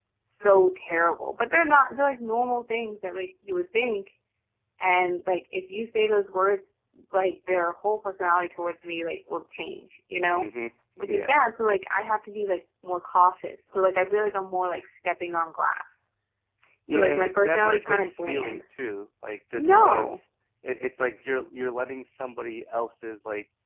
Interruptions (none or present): present